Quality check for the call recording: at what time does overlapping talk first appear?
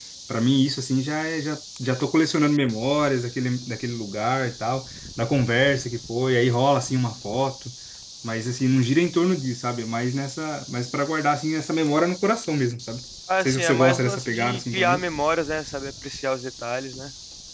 13.3 s

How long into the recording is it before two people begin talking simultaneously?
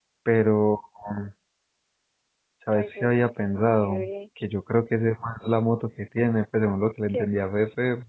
2.7 s

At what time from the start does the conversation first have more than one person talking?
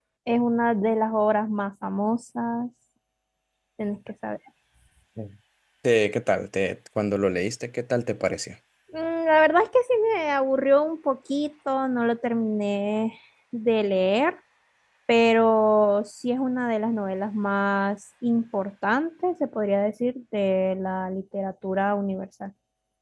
none

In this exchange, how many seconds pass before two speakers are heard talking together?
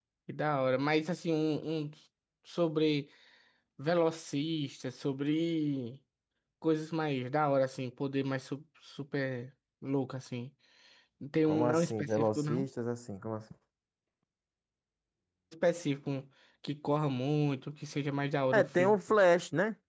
11.4 s

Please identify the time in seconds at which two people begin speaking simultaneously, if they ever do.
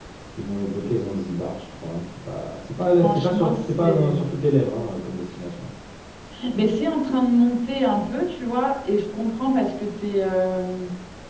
2.8 s

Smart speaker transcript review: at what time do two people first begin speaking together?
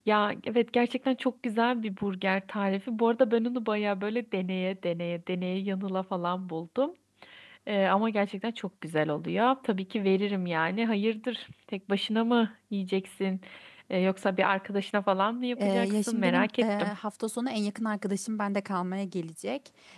15.6 s

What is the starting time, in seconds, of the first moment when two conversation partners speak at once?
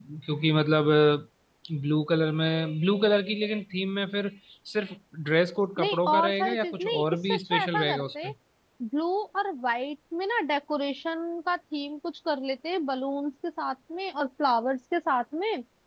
5.8 s

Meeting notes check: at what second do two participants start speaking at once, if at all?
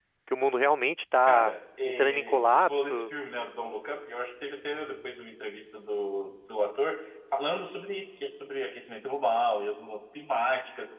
1.3 s

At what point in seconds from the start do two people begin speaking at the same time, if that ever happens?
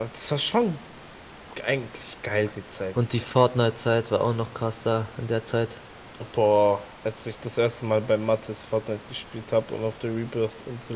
none

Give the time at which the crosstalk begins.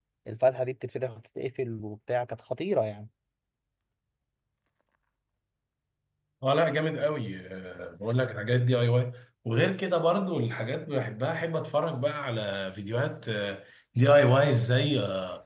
none

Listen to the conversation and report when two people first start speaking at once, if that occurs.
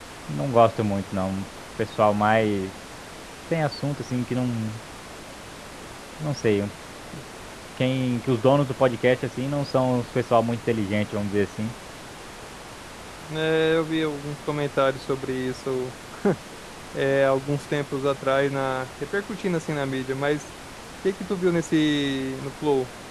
none

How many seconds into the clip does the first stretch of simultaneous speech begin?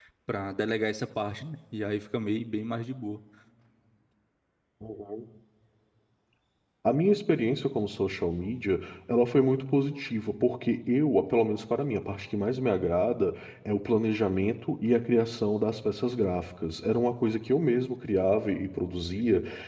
none

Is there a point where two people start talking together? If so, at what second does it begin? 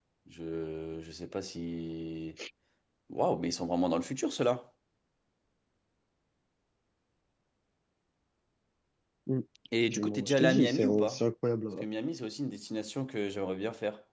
9.9 s

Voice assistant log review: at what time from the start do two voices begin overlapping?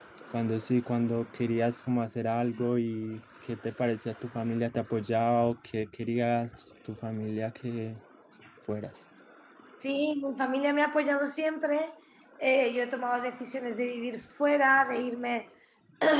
none

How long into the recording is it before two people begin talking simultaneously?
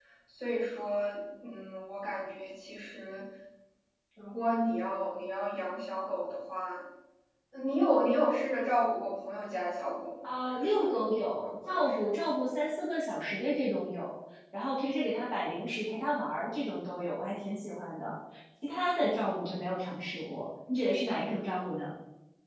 10.4 s

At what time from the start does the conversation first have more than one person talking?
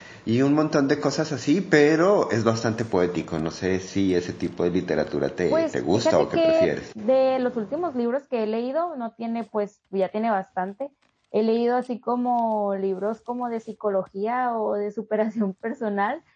5.5 s

